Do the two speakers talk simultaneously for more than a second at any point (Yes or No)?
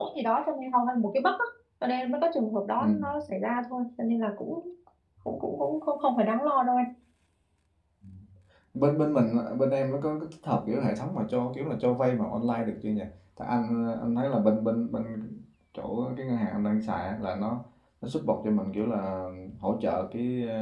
No